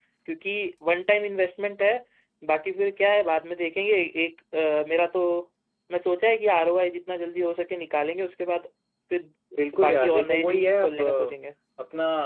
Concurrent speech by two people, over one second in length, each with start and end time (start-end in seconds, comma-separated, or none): 9.8-11.3